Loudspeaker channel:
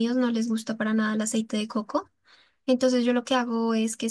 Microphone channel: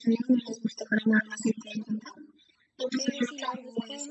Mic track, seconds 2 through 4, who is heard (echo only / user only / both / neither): both